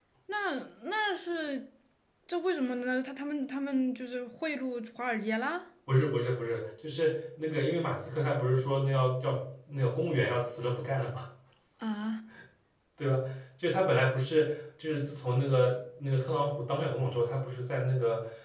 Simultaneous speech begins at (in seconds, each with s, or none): none